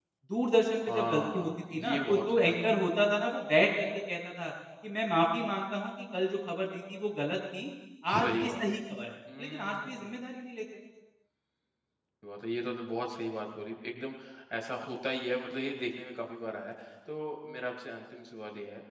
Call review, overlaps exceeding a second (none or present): present